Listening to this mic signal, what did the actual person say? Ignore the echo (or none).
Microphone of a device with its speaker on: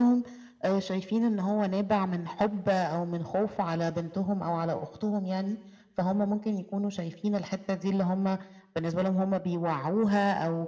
none